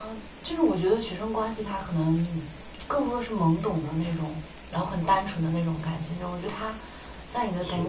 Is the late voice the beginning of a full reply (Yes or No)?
No